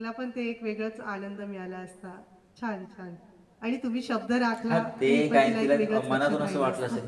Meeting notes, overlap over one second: present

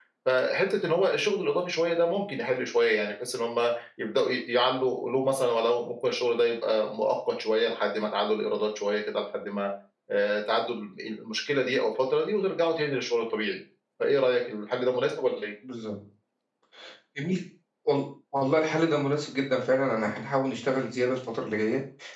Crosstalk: none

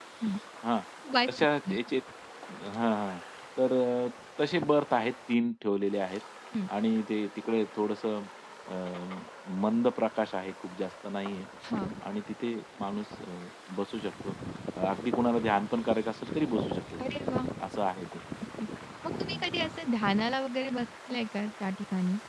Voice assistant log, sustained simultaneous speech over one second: none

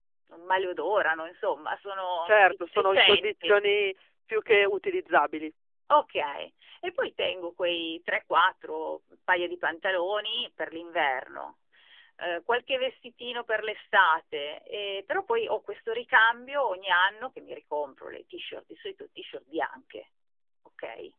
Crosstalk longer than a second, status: present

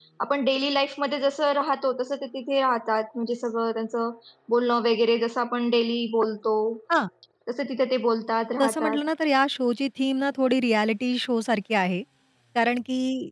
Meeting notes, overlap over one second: none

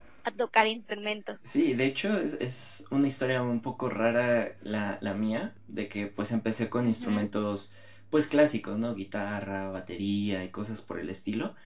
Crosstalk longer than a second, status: none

